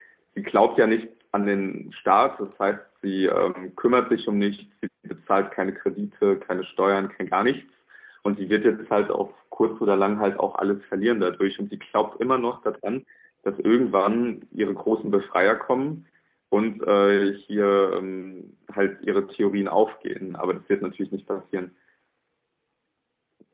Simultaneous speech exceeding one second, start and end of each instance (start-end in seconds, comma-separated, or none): none